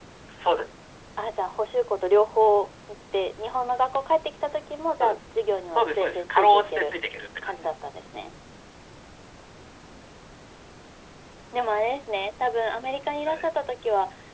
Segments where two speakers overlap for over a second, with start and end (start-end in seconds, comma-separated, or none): 5.7-6.9